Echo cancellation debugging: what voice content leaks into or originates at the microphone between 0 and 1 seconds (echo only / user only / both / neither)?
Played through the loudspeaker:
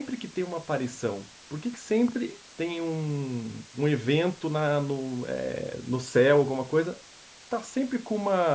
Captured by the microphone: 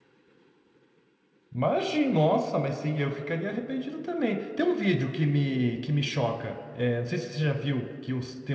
neither